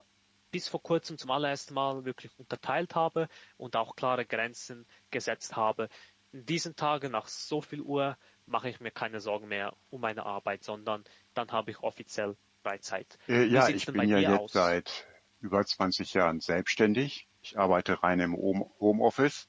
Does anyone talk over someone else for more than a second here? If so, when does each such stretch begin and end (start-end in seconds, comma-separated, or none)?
13.5-14.7